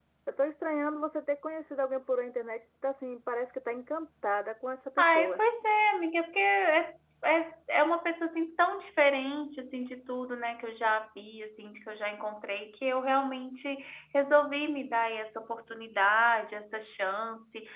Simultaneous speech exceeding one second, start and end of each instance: none

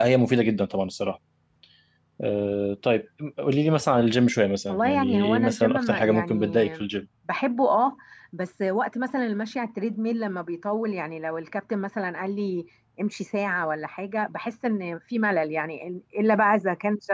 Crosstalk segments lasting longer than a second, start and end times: 4.7-6.7

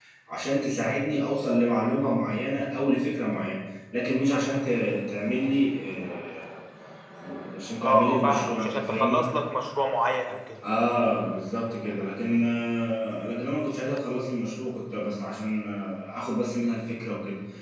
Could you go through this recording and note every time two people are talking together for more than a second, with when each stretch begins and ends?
7.8-9.2

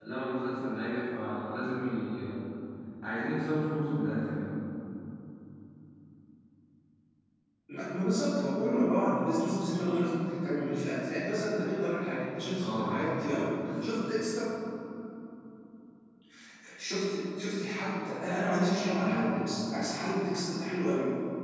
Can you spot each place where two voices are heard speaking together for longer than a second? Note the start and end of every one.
none

